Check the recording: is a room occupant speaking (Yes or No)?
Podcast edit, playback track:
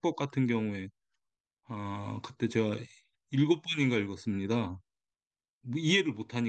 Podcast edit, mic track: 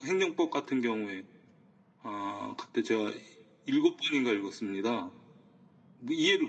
No